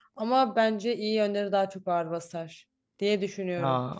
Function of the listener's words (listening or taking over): taking over